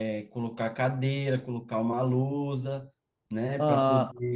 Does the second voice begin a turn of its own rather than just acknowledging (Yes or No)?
No